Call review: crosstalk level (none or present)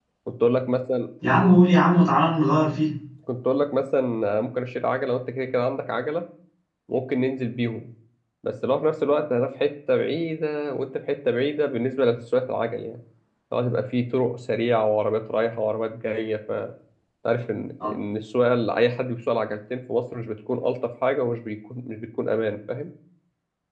none